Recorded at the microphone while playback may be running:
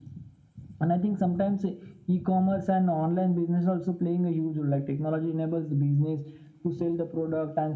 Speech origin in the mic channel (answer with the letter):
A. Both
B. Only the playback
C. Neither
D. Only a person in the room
B